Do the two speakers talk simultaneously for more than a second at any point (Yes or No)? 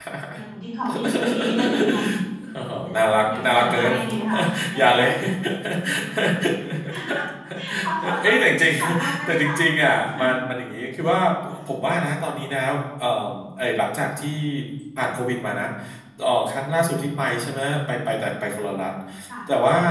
Yes